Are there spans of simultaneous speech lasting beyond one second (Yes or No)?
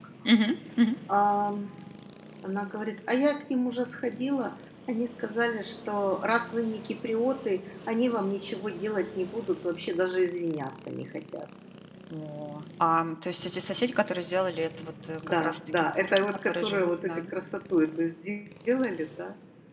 Yes